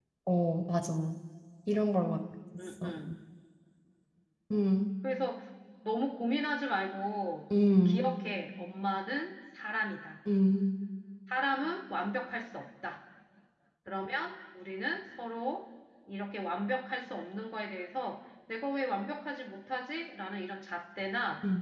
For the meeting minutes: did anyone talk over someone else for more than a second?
No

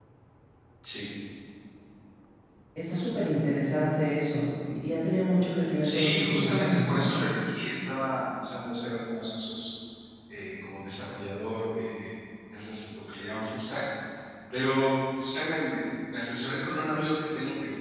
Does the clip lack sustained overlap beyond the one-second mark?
No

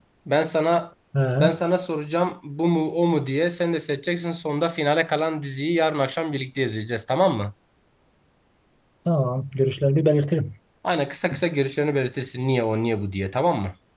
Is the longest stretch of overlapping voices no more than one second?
Yes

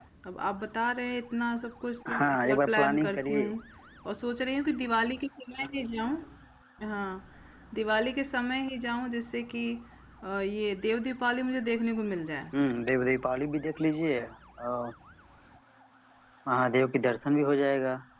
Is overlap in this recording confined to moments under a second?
No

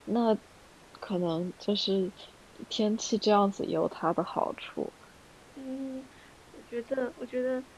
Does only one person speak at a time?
Yes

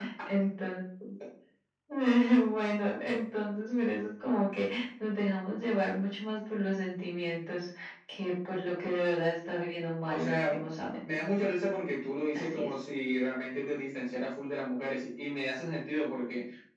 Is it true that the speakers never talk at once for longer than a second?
Yes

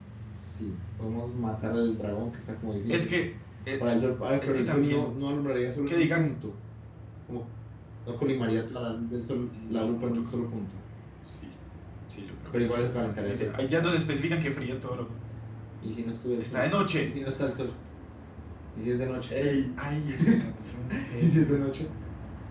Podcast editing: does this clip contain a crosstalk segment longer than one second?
Yes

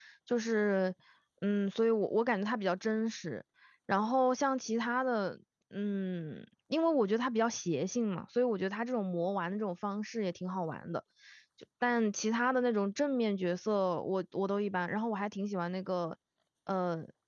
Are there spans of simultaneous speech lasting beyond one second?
No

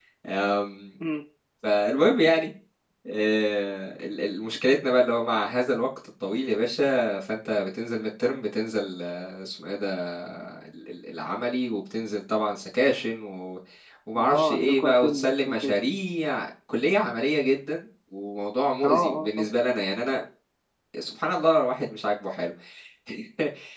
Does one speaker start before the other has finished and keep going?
Yes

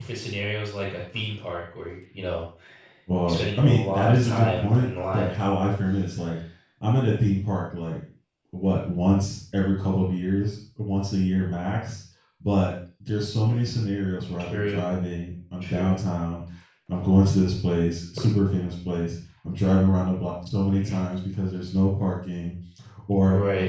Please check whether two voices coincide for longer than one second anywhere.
Yes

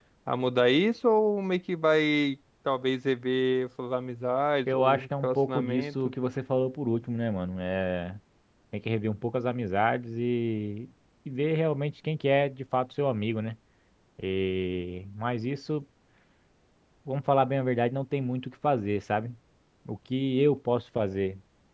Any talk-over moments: Yes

